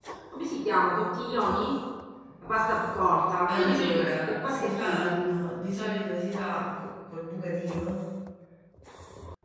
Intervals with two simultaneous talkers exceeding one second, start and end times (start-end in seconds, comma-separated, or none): 3.5-5.4